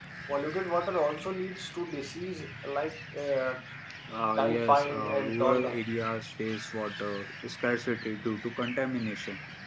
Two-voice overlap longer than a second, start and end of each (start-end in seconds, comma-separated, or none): 4.4-5.8